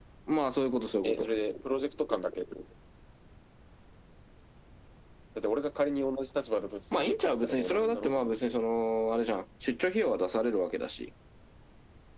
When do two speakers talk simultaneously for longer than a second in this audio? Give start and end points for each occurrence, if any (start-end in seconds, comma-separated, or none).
6.9-8.5